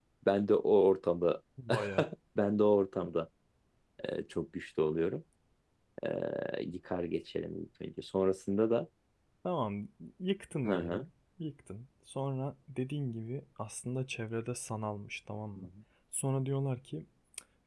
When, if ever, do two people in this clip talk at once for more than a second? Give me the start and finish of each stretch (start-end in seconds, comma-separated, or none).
none